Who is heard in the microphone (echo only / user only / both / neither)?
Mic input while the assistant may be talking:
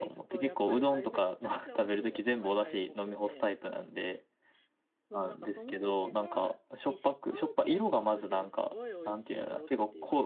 both